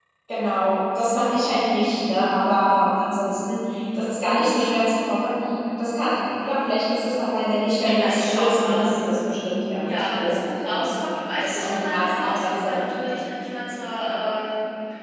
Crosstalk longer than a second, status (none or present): present